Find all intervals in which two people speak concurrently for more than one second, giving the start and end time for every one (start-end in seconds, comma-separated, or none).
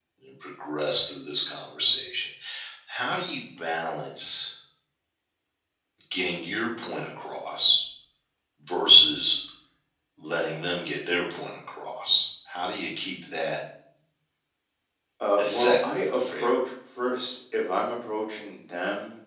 15.4-16.6